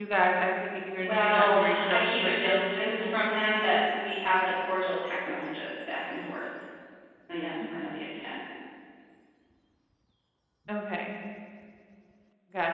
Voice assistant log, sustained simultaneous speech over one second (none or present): present